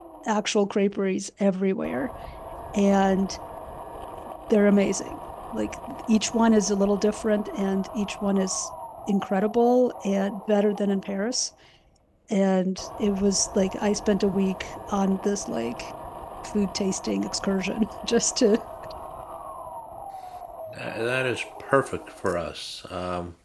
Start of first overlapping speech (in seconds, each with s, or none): none